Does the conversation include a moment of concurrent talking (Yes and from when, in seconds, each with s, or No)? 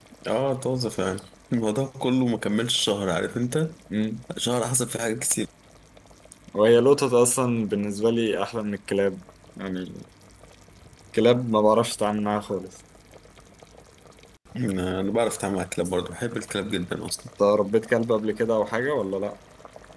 No